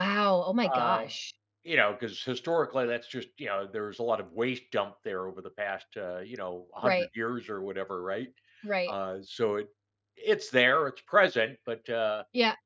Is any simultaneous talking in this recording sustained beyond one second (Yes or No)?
No